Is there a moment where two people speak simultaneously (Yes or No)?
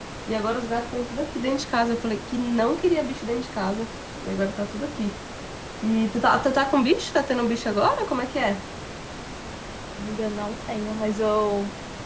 No